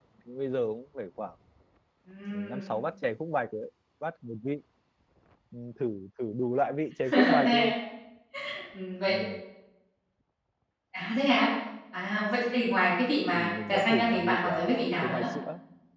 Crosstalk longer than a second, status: present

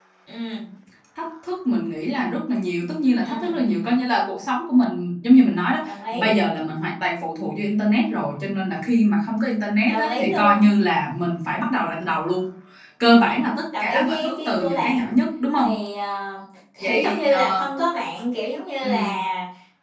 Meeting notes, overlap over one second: present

